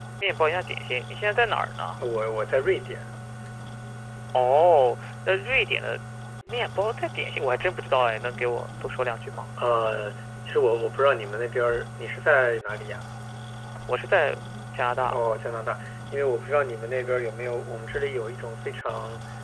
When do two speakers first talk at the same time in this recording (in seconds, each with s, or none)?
none